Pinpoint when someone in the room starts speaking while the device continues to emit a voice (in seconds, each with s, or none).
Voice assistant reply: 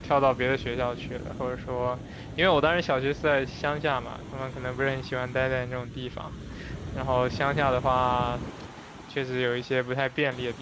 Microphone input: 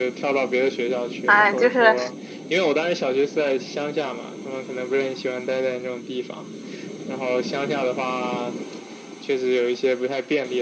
1.2 s